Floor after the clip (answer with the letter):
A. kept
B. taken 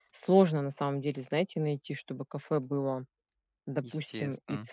A